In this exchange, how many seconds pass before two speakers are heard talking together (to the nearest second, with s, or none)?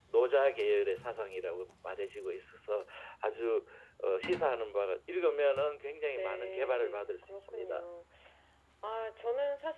6 s